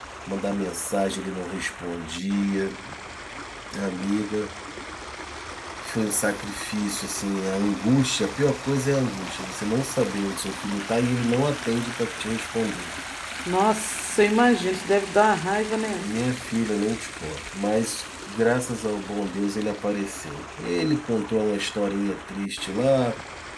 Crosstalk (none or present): none